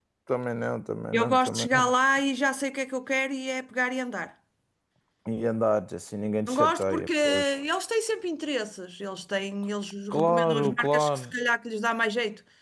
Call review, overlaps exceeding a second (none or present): present